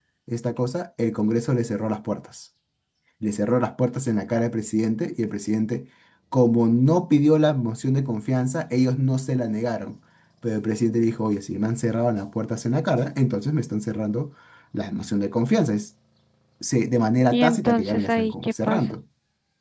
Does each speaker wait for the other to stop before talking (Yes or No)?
No